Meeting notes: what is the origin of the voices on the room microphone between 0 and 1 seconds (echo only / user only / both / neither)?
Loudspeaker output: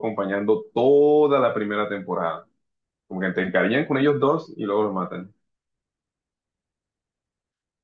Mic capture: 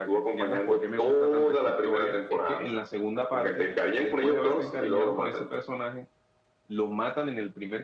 both